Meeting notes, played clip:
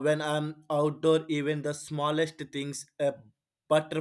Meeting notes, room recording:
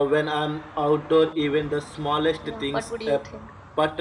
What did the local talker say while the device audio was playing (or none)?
Yeah, what would you think?